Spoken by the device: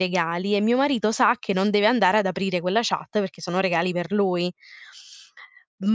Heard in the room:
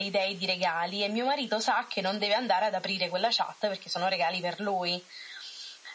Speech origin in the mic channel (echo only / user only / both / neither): echo only